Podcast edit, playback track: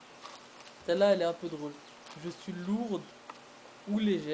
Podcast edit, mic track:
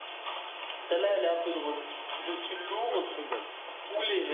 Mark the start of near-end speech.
2.9 s

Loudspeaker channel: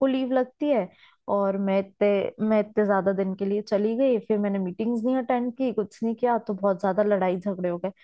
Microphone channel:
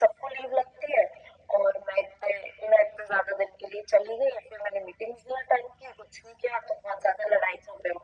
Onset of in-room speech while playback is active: none

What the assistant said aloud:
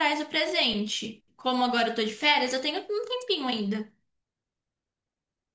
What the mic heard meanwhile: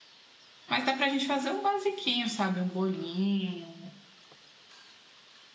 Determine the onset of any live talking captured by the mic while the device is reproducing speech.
0.7 s

